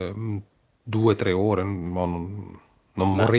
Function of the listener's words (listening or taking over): listening